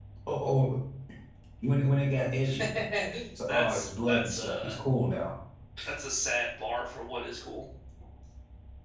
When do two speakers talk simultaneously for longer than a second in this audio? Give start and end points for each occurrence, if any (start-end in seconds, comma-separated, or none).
3.5-4.7